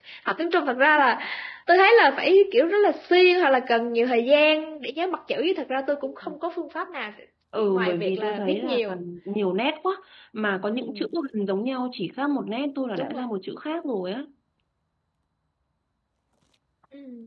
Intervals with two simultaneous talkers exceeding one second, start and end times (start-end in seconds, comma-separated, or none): 7.6-8.8